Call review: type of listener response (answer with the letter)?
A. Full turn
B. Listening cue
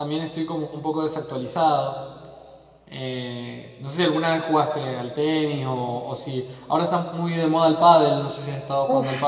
A